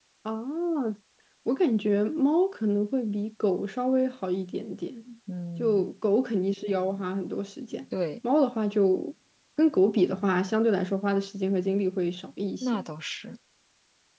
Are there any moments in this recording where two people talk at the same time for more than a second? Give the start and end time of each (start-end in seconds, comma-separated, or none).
none